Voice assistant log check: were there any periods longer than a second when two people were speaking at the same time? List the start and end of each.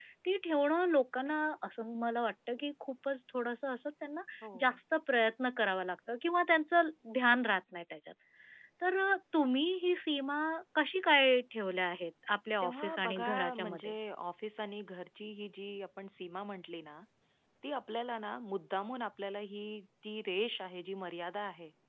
12.6-13.9

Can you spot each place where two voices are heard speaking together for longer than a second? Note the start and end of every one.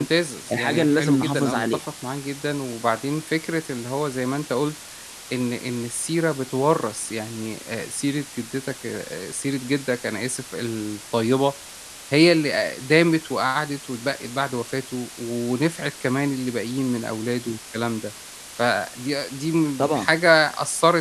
0.5-1.9

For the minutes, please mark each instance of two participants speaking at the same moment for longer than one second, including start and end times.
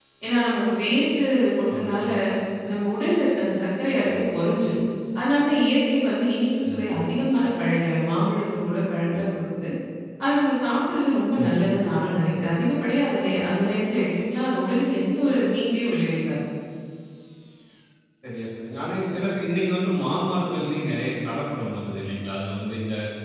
none

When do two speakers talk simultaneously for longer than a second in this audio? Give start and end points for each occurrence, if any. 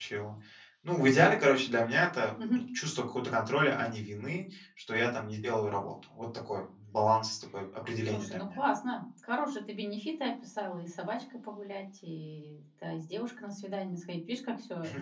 none

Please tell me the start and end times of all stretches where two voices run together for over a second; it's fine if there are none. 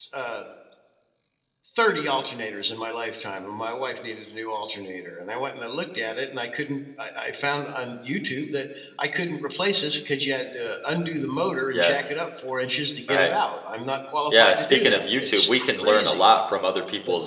14.3-16.2

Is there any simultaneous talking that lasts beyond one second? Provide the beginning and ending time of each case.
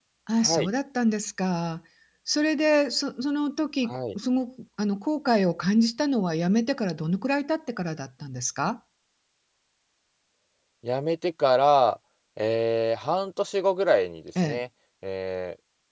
none

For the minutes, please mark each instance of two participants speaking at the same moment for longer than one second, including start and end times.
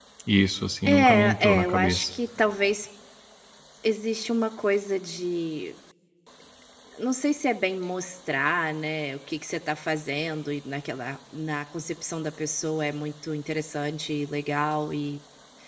0.9-2.1

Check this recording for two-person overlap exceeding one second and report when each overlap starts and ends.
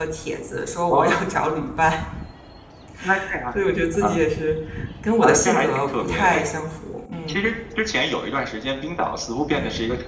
5.2-6.4

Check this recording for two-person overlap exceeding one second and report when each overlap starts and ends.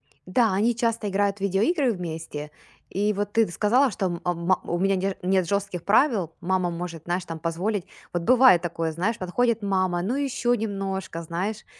none

